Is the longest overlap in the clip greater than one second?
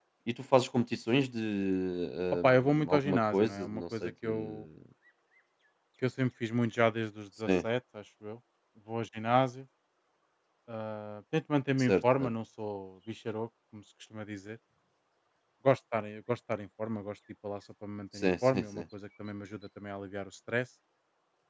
Yes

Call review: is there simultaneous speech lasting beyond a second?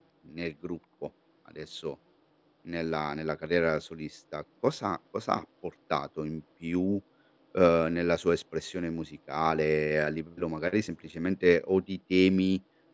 No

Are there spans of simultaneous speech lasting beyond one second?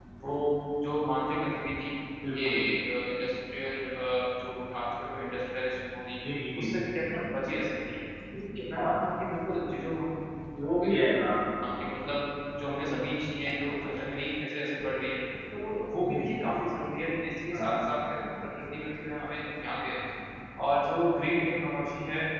No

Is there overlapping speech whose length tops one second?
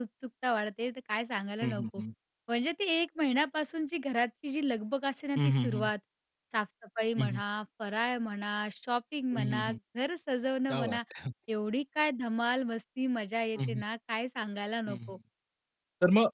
No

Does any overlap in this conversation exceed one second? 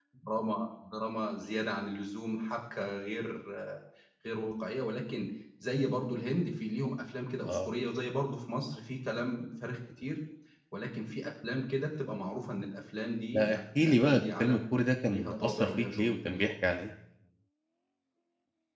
Yes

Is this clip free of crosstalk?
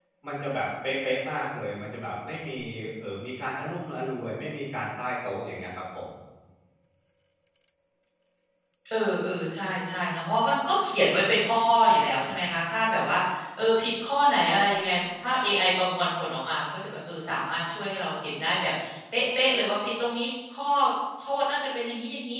Yes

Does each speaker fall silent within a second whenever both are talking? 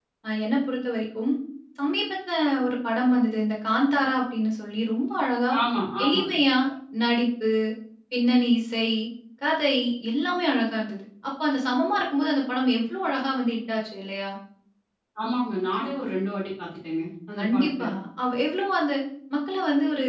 Yes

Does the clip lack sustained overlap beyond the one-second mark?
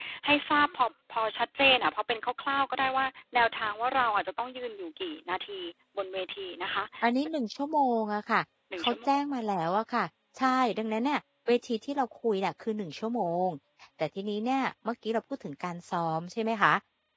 Yes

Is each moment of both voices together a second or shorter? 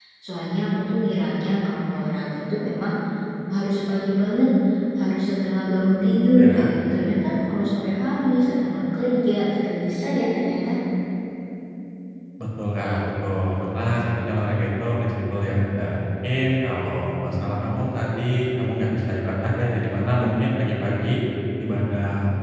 Yes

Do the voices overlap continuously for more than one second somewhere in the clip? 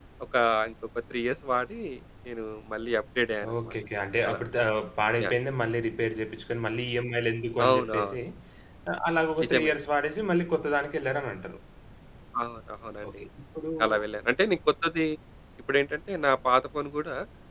No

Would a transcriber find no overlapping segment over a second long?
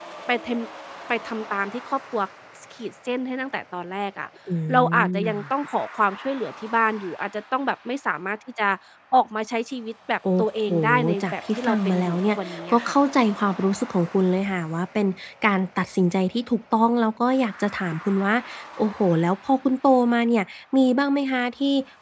No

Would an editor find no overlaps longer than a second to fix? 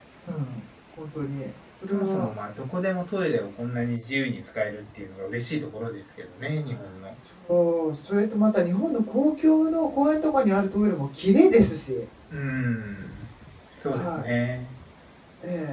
Yes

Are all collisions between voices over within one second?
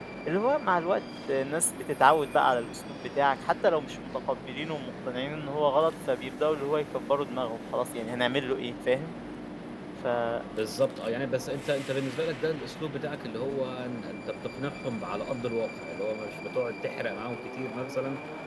Yes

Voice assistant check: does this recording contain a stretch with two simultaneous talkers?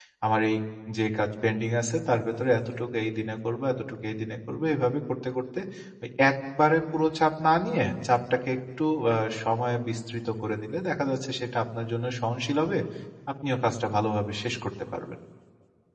No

